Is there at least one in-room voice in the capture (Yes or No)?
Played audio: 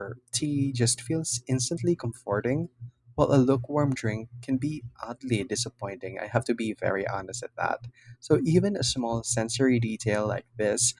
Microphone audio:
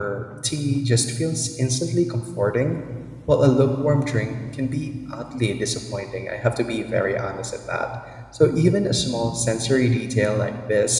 No